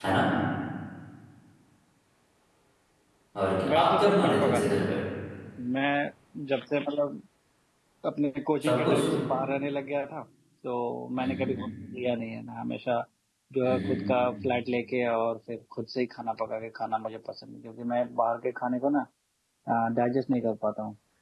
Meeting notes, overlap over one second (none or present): present